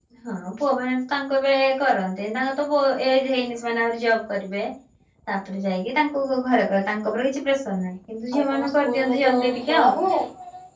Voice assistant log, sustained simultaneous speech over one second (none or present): present